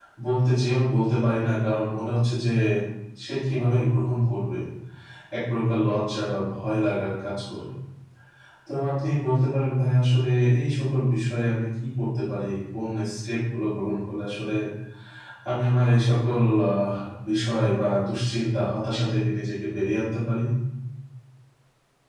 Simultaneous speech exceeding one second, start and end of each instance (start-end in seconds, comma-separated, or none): none